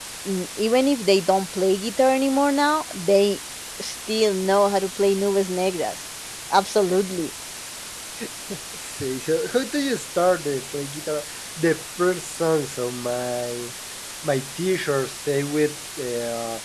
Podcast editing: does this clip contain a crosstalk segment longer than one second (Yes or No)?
No